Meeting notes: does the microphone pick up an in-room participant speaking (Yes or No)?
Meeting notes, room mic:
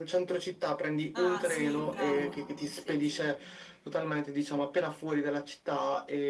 Yes